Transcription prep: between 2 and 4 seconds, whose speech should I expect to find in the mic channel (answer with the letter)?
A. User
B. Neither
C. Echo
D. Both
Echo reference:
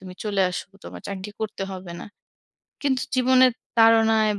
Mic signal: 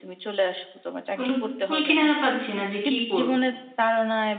D